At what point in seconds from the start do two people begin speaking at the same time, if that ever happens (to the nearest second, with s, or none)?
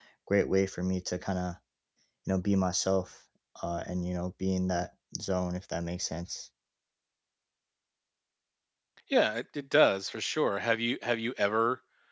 none